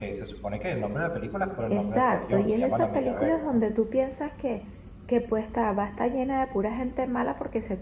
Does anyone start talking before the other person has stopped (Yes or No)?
Yes